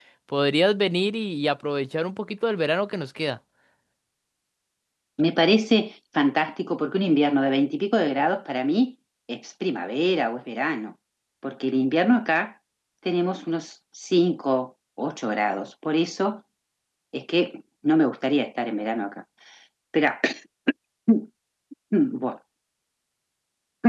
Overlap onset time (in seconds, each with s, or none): none